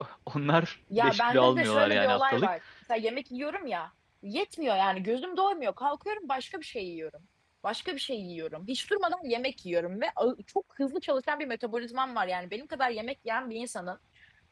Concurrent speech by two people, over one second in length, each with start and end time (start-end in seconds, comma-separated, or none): 1.0-2.5